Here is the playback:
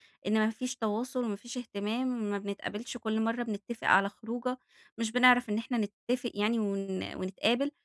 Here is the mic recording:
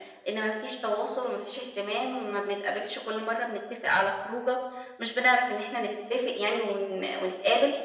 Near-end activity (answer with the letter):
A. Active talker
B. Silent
B